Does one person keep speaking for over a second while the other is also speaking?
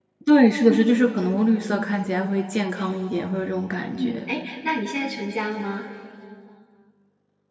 No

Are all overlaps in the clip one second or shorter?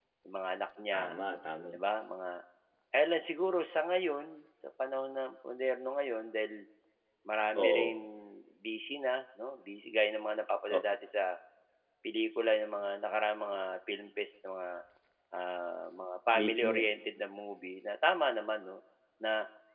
Yes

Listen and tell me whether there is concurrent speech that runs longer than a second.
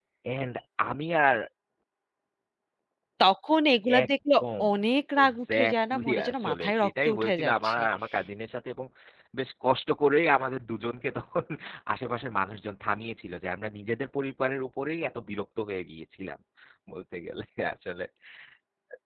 Yes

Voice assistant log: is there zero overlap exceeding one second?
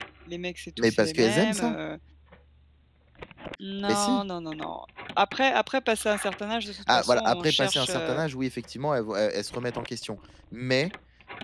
No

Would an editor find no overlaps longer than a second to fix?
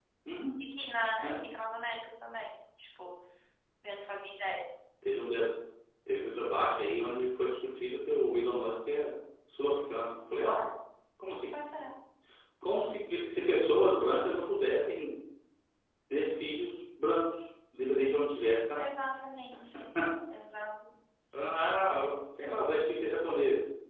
Yes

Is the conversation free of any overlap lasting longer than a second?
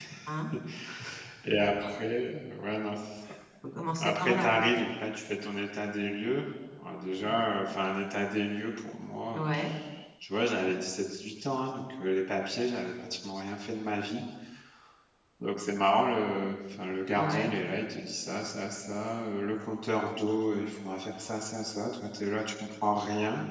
Yes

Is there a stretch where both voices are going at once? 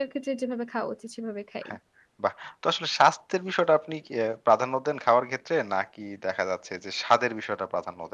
No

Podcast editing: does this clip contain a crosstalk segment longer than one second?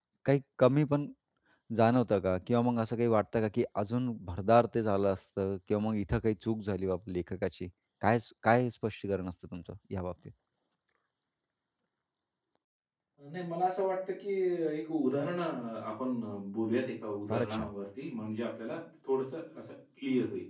No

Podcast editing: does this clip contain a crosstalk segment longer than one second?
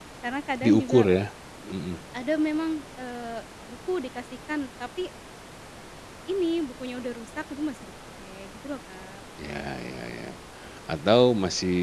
No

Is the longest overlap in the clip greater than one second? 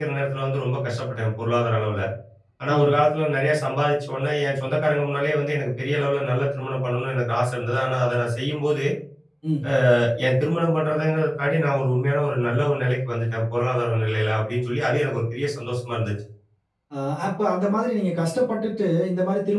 No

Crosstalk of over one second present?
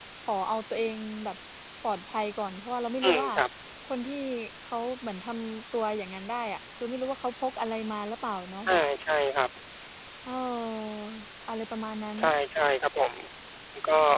No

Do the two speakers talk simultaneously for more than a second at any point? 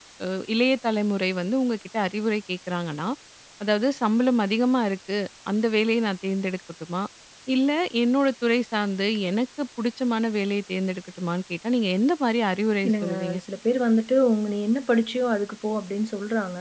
No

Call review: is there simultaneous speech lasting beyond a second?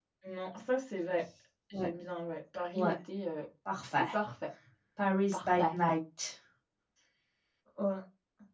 No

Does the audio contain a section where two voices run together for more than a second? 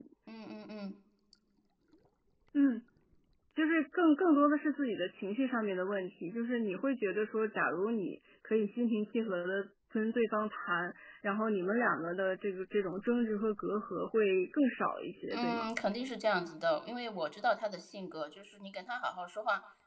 No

